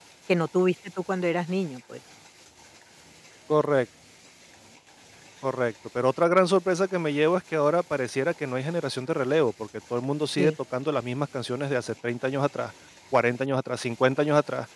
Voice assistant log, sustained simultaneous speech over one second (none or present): none